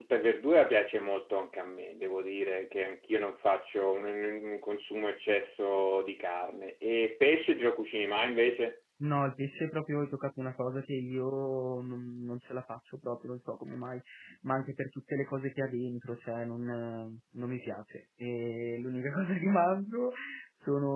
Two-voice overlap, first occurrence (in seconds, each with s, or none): none